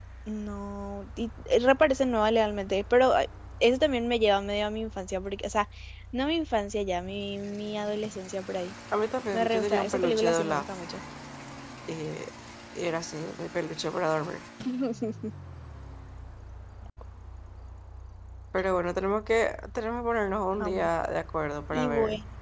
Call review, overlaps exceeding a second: present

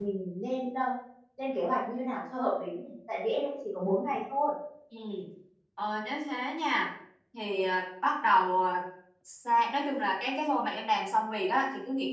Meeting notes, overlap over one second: none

